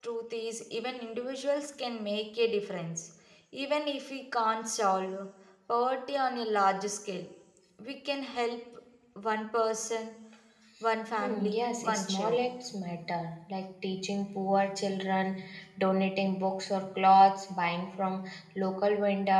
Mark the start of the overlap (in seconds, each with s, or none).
11.2 s